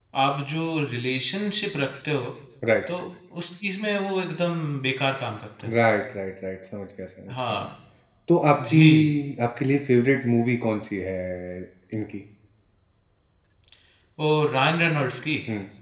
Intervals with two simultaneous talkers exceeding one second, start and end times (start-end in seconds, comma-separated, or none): none